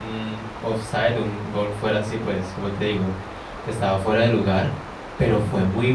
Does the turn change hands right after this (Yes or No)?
No